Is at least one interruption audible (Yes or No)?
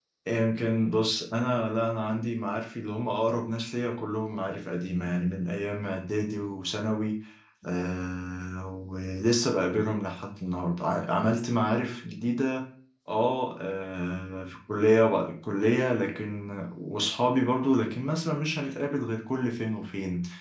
No